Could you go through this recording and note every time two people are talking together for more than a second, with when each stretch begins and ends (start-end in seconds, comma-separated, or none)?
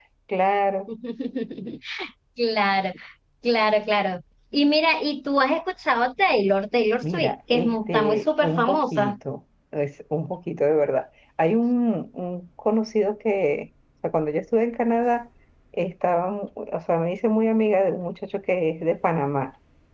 7.0-9.2